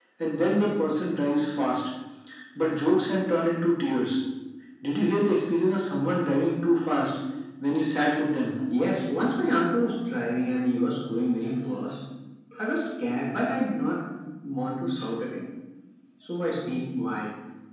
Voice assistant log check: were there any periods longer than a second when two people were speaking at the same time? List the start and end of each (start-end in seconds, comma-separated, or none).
none